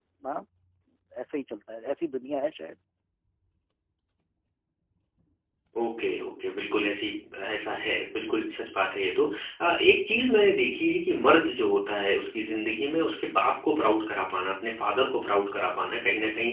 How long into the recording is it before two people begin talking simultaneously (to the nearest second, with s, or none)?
none